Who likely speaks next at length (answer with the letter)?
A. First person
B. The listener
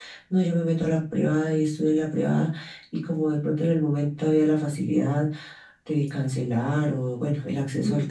A